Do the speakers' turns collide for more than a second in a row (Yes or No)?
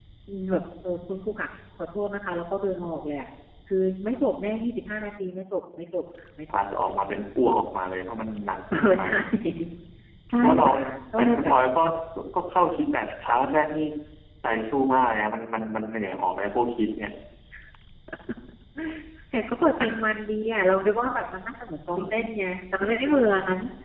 No